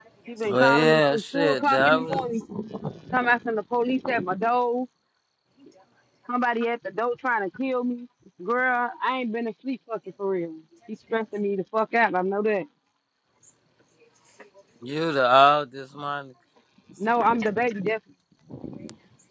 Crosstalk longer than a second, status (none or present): present